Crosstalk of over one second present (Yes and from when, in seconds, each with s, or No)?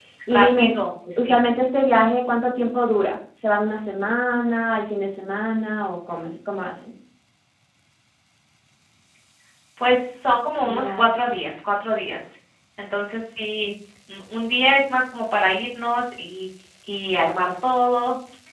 No